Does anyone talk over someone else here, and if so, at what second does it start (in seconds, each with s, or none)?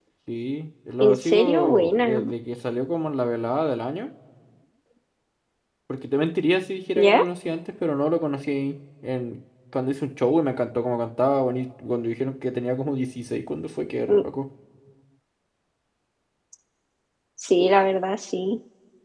1.0 s